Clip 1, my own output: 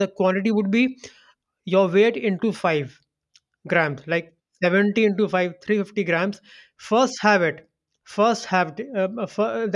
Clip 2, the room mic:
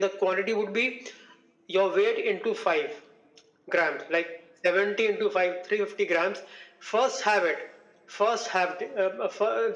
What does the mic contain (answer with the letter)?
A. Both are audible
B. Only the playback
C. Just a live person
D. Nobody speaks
B